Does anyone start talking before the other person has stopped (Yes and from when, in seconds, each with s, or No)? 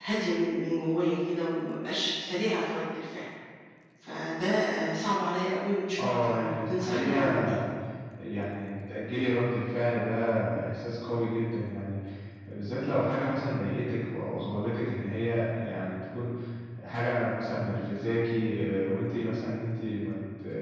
Yes, from 5.9 s